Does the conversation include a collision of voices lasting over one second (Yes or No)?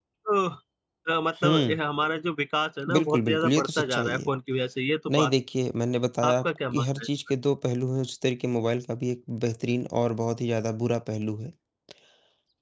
Yes